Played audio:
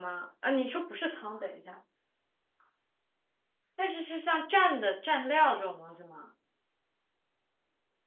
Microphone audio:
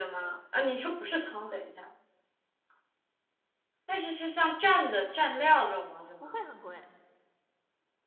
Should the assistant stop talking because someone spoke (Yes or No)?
Yes